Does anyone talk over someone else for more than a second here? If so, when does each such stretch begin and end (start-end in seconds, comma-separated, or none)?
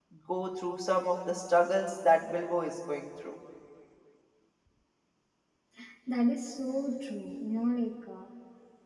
none